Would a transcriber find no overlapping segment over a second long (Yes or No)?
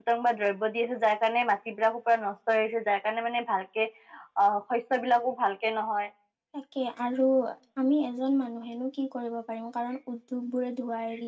Yes